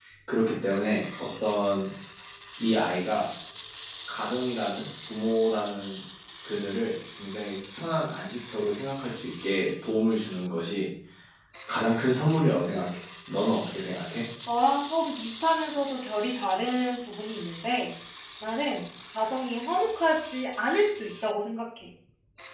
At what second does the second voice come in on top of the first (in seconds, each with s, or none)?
none